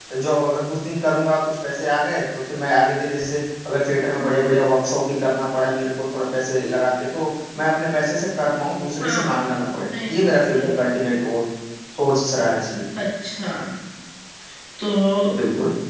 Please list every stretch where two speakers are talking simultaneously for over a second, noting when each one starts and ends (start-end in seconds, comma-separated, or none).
9.0-10.9